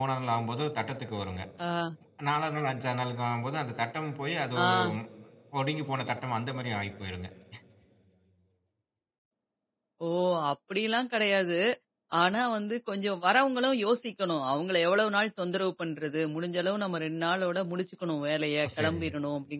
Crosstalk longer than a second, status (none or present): none